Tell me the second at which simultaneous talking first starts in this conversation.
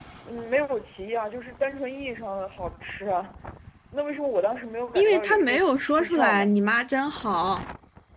5 s

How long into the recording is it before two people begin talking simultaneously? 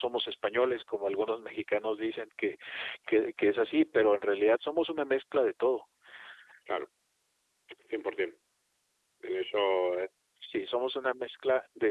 none

